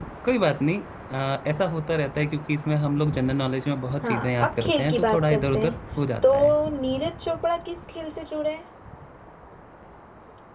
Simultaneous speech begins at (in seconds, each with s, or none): 4.0 s